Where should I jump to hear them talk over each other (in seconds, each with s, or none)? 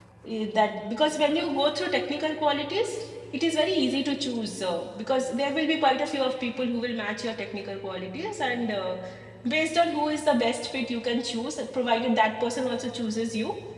none